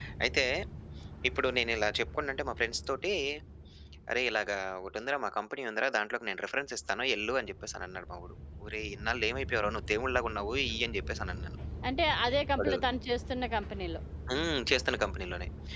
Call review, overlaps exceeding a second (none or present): none